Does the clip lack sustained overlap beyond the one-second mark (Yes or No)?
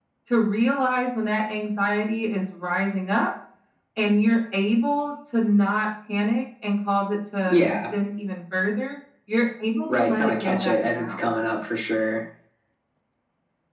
No